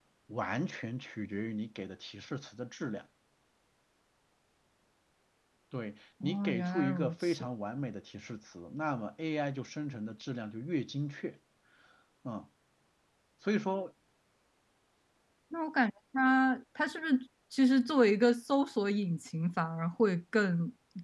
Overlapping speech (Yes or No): Yes